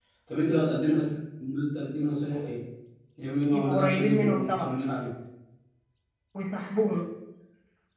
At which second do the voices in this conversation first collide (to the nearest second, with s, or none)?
4 s